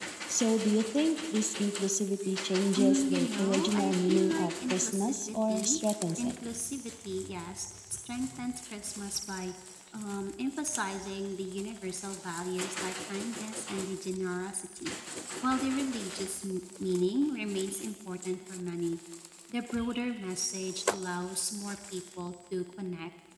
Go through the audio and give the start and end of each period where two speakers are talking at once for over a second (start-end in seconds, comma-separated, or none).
2.8-5.8